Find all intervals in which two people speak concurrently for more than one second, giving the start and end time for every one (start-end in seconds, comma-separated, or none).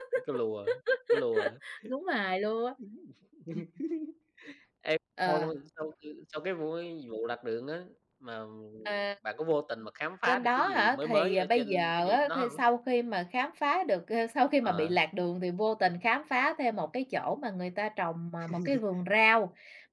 10.3-12.6